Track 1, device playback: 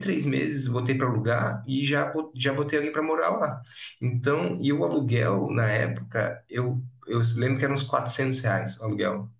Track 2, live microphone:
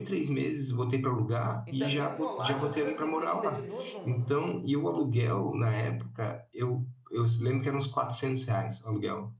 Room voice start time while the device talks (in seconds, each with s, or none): 1.7 s